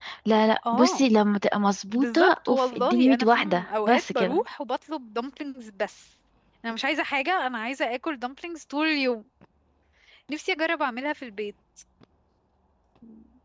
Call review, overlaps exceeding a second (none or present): present